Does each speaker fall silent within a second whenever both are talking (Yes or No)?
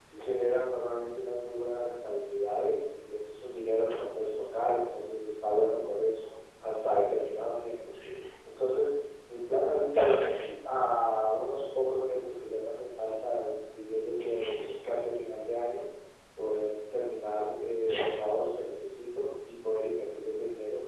Yes